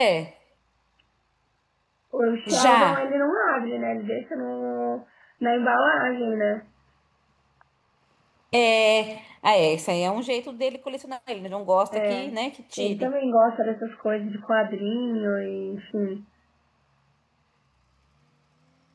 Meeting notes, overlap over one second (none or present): none